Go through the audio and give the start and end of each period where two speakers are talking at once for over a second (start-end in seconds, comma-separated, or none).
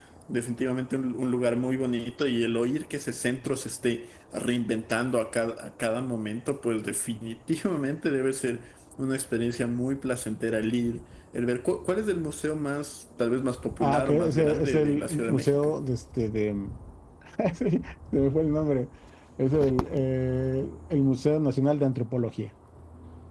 13.8-15.7